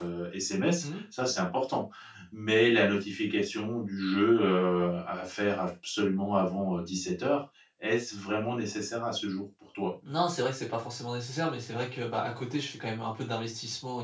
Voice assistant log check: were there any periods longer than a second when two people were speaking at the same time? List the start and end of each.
none

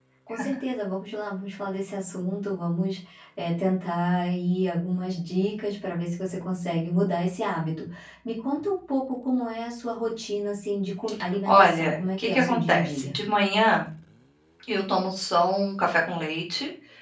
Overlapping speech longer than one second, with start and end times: 11.5-13.2

